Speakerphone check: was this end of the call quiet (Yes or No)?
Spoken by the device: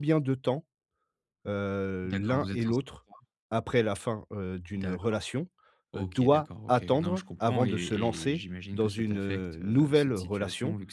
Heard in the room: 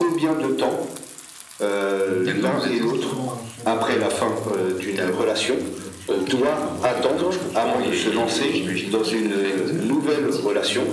No